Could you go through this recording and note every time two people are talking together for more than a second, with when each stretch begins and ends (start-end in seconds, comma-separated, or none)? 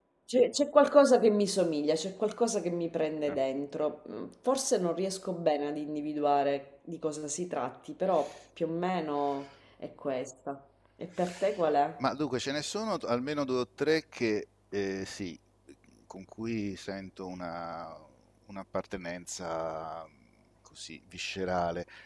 none